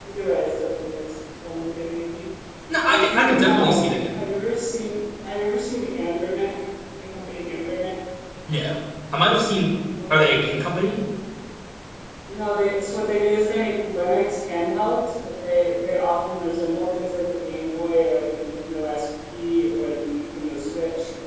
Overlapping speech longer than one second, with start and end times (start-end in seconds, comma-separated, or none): 2.9-4.2